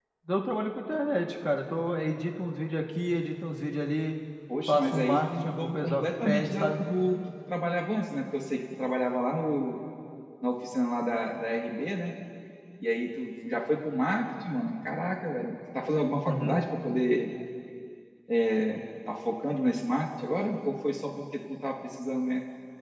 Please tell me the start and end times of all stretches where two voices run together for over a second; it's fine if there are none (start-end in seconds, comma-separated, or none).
4.7-6.8